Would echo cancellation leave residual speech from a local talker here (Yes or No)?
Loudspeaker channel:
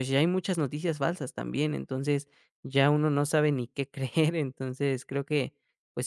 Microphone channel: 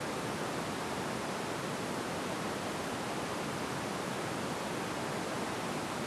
No